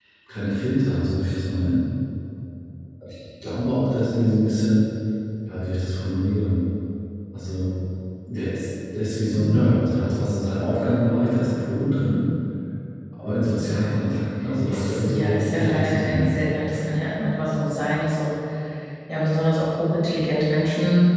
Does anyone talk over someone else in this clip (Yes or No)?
Yes